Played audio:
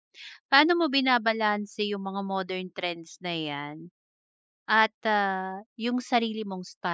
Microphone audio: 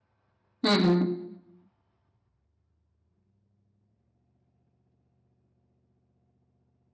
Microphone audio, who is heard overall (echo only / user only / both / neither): user only